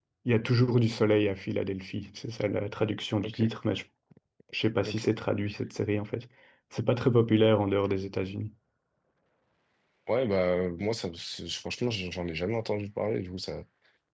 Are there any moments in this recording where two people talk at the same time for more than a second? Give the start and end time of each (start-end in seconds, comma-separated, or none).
none